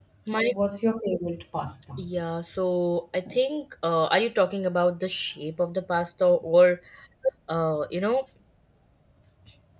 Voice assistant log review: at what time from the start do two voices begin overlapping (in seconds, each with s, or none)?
none